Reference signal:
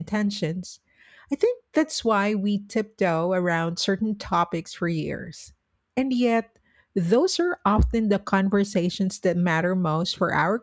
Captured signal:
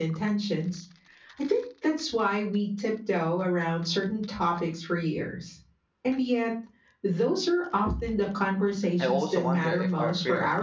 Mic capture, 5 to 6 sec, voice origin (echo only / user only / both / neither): echo only